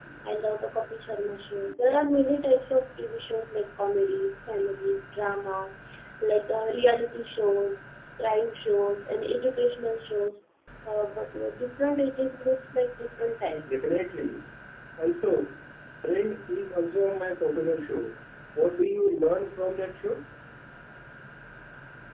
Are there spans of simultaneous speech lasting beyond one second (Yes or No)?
No